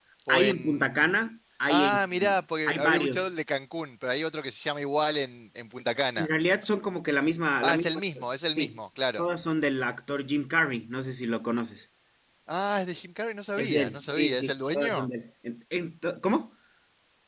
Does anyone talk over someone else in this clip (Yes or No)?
Yes